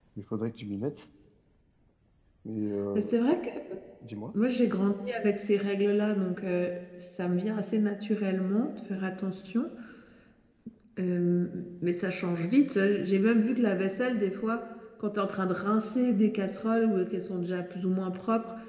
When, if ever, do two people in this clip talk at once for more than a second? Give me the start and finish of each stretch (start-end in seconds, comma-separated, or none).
none